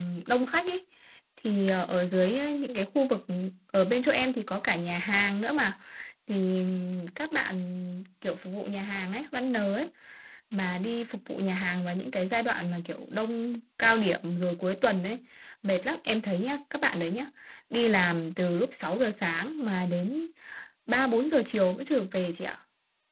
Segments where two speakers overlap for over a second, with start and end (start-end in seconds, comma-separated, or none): none